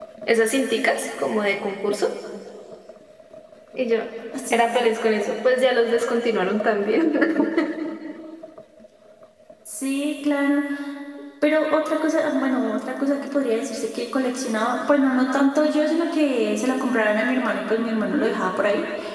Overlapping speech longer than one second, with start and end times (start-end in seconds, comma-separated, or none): none